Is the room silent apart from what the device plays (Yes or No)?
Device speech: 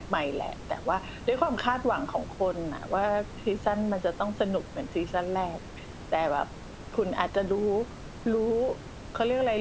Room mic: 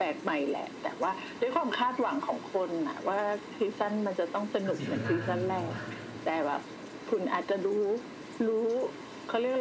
No